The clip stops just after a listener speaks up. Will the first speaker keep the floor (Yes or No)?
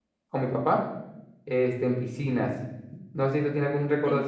Yes